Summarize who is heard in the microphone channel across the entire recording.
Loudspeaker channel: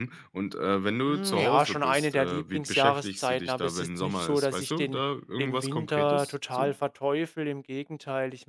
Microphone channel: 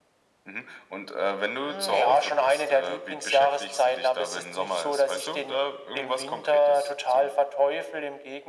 echo only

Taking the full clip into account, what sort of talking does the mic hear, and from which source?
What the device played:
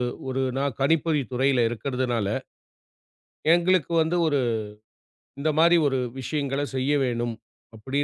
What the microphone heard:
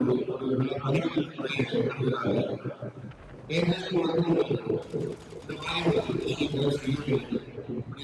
echo only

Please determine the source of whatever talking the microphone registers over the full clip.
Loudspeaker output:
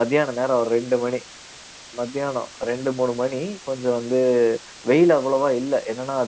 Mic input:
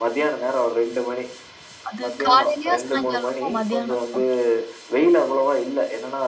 both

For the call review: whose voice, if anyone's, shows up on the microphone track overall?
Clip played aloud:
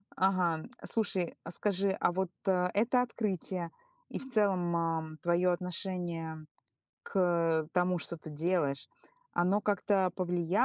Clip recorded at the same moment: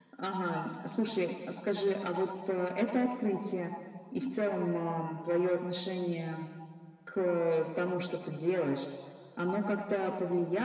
echo only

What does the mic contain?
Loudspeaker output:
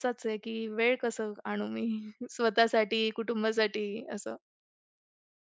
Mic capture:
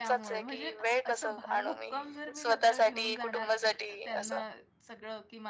both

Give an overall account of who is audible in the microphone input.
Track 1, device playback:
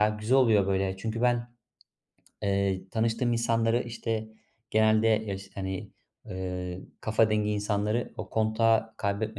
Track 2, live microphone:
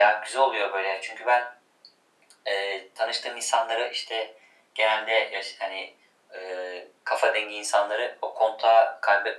echo only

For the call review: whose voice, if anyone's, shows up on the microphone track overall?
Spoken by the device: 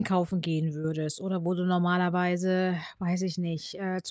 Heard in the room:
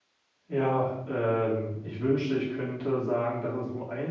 user only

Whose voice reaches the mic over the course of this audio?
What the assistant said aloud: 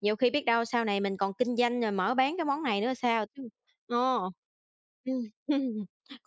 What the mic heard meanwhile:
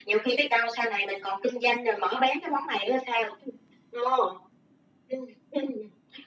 echo only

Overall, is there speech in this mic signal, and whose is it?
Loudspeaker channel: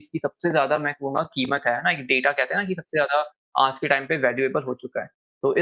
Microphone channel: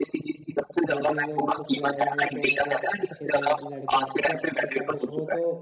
both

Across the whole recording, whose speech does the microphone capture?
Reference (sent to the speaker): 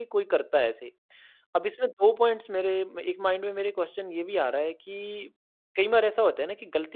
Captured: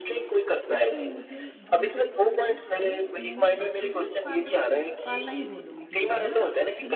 both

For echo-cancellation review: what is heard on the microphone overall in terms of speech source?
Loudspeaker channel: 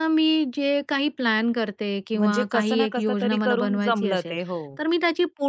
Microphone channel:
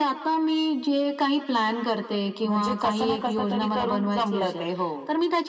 echo only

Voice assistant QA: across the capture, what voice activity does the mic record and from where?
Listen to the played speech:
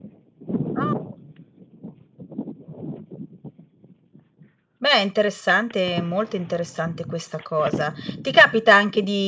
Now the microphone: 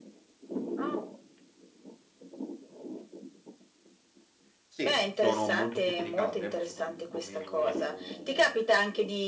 both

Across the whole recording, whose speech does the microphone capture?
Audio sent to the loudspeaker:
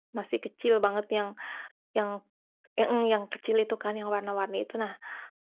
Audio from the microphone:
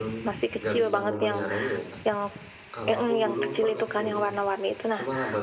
both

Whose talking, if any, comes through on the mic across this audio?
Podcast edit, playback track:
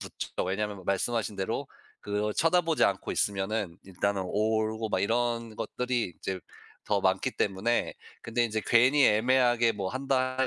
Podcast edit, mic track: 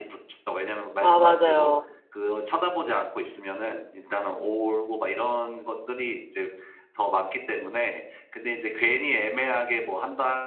both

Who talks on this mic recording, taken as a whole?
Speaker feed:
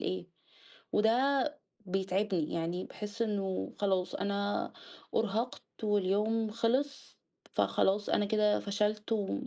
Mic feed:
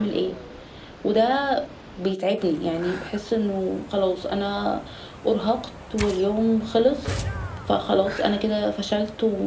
echo only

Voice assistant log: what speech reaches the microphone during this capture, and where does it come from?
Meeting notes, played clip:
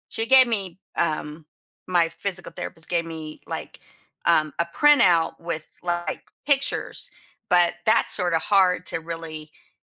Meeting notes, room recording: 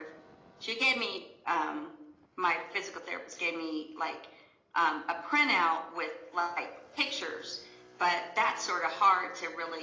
echo only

